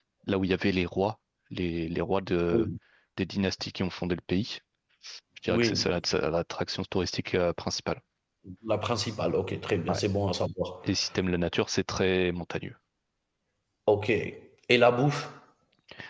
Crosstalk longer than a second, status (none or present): none